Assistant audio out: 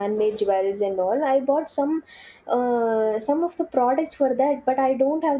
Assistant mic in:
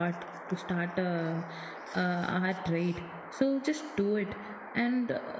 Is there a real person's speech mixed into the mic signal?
Yes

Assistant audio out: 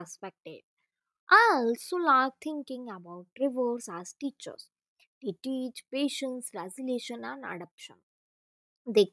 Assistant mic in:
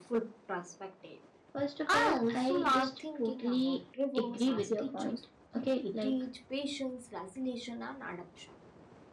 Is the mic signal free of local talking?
No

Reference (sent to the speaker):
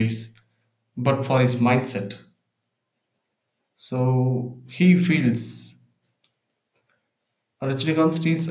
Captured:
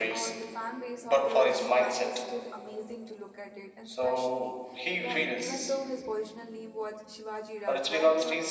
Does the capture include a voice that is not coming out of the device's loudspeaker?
Yes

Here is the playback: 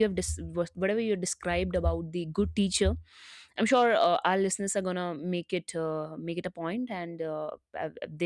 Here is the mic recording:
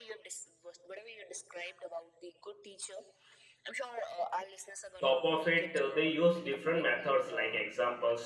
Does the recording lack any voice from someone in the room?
No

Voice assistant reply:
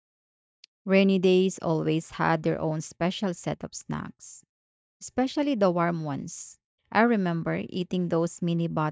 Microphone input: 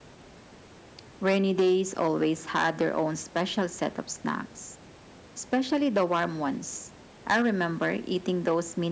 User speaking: No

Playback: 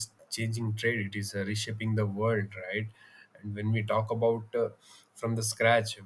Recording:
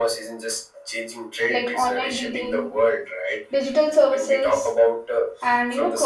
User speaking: Yes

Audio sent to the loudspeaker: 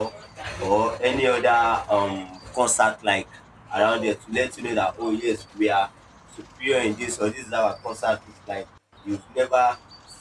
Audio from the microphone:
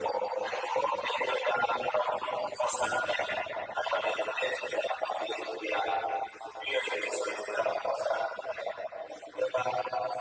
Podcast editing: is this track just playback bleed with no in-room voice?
Yes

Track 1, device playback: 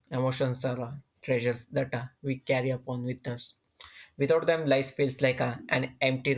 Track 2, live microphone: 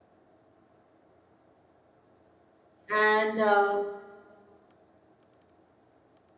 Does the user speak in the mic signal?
Yes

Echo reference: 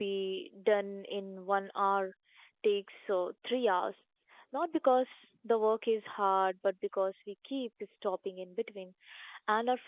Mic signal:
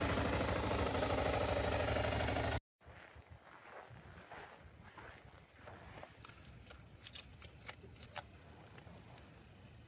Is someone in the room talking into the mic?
No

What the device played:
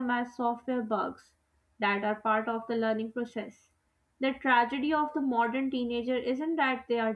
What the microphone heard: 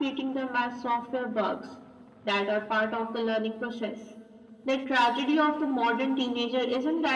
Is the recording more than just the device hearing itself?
No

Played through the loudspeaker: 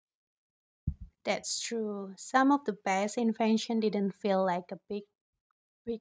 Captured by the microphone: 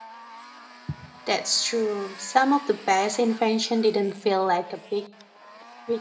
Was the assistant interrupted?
No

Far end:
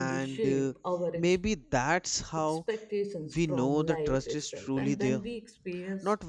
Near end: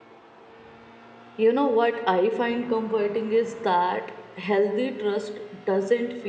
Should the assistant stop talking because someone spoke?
Yes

